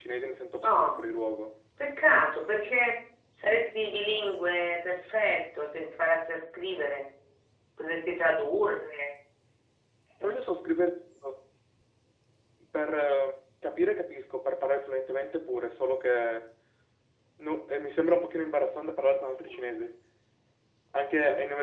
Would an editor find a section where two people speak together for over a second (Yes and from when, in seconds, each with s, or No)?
No